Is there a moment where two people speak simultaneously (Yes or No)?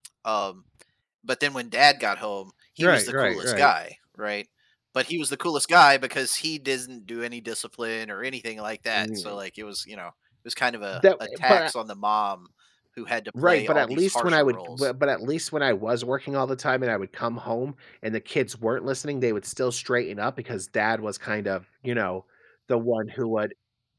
Yes